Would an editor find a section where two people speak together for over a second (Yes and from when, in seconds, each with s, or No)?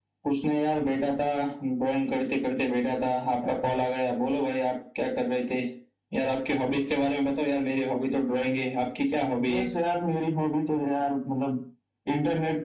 No